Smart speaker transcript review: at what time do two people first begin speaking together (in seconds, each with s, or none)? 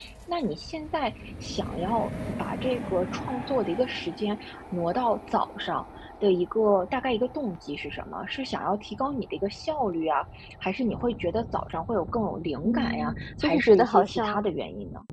12.6 s